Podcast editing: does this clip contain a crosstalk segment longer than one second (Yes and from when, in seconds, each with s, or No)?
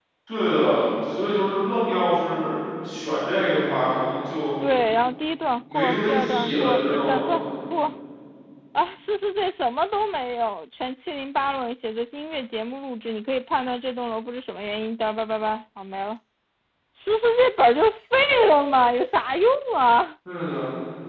Yes, from 5.7 s